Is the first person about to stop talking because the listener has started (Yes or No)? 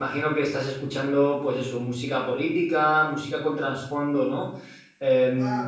Yes